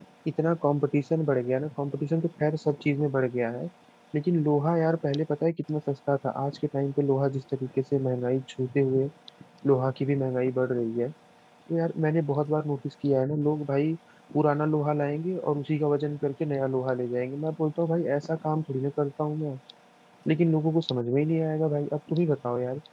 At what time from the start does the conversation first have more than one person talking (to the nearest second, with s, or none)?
none